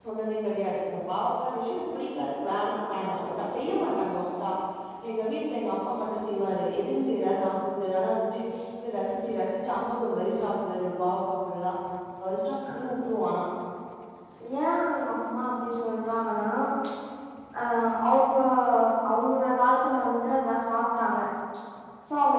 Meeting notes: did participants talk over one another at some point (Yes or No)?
No